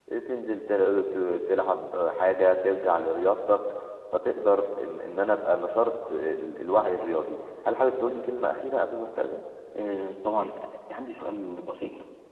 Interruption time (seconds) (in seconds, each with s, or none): none